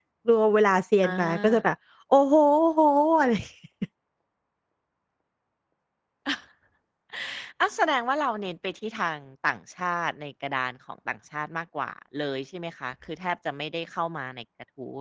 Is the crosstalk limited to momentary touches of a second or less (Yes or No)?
Yes